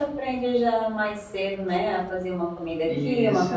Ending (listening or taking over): listening